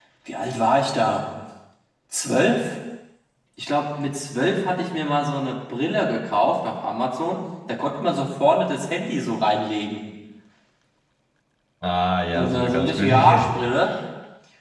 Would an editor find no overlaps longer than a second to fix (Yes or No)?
No